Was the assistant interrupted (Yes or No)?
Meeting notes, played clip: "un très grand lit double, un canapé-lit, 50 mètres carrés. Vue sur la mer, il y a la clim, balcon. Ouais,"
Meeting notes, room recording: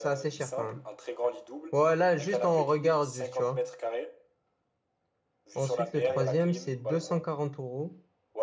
Yes